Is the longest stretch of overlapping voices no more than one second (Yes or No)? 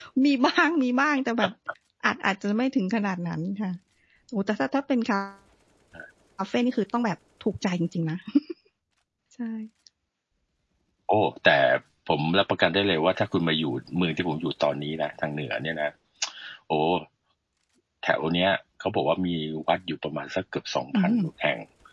Yes